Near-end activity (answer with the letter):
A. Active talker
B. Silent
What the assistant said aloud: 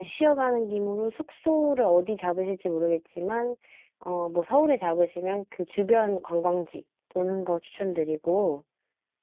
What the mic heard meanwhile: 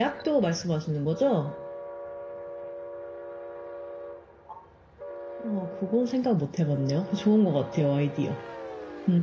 A